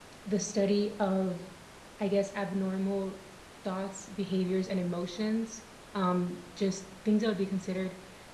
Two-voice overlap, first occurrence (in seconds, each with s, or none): none